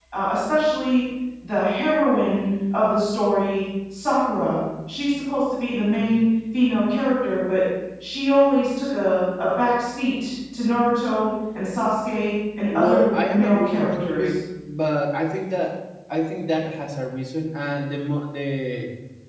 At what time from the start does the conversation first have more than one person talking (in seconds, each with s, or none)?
12.7 s